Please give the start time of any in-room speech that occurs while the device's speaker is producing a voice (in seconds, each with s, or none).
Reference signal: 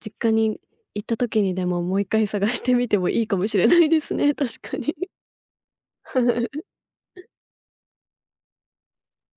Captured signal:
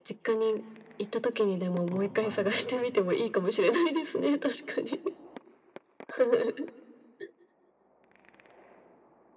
1.9 s